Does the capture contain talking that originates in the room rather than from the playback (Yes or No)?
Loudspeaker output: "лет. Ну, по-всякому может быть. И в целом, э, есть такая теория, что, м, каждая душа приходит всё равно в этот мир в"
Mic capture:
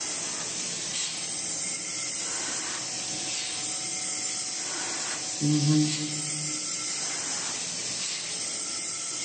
Yes